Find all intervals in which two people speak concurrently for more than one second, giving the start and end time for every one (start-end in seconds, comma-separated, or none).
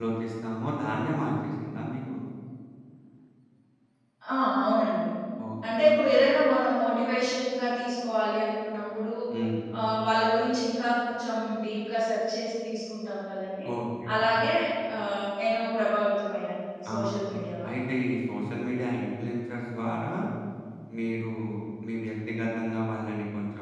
none